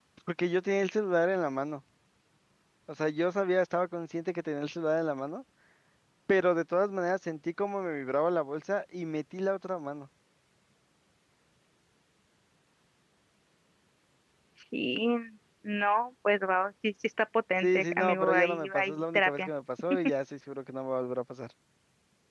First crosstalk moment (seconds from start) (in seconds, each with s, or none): 17.6 s